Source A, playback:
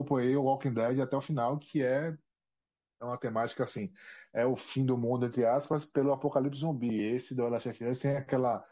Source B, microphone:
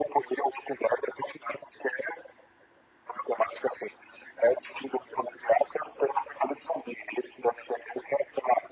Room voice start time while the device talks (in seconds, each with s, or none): none